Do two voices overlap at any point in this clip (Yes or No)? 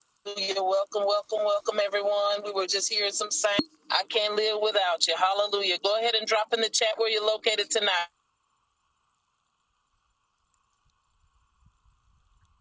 No